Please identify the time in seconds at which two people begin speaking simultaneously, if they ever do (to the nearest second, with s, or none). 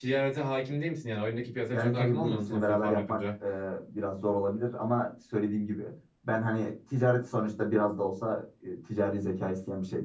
2 s